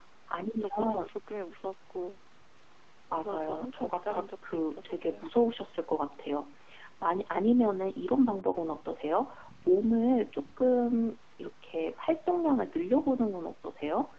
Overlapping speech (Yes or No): Yes